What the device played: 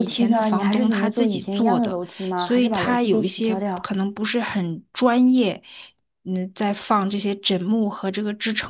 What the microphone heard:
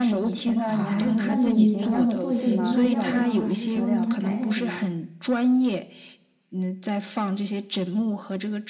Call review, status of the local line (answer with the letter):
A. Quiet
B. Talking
B